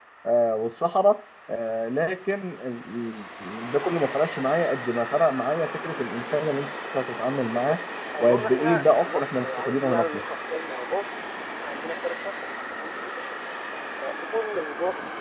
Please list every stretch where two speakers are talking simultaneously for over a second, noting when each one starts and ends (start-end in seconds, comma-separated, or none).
8.2-10.2